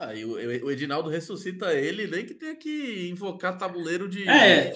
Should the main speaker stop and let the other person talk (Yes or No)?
Yes